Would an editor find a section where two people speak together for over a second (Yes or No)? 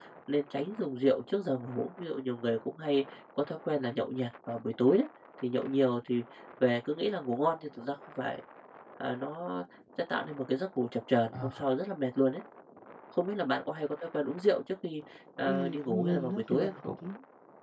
Yes